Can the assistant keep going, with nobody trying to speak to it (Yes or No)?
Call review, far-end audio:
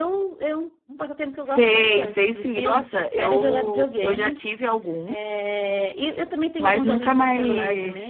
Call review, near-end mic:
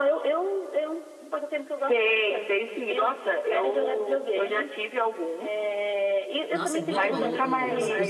No